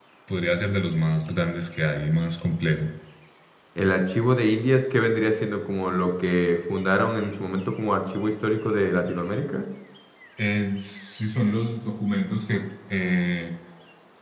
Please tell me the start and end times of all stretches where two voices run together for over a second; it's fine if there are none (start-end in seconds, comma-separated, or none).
none